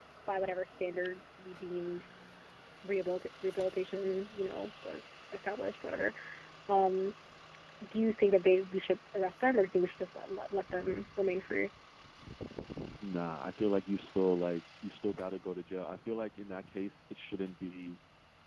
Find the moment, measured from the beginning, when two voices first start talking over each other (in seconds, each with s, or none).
none